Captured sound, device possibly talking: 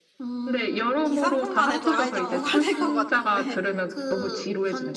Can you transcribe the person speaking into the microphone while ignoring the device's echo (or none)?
2, 3분만 해도 아이디 고갈될 것 같은데.